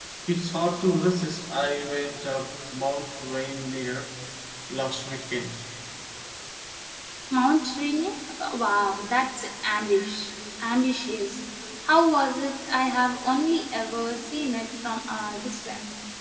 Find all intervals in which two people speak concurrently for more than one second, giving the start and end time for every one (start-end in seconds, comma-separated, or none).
none